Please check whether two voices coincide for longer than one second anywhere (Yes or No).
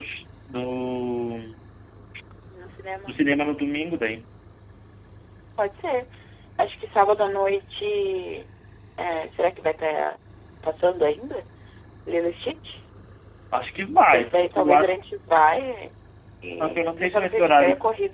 Yes